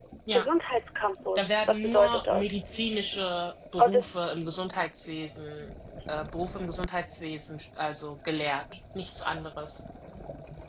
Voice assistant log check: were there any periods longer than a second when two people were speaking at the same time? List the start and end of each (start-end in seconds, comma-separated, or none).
1.4-2.7